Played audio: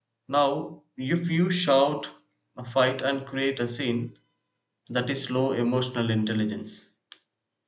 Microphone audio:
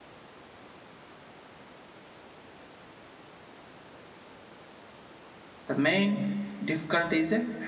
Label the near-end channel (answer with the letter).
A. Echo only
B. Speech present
B